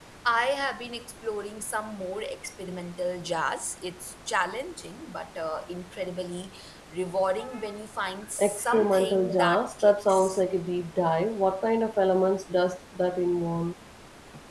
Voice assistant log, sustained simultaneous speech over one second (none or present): present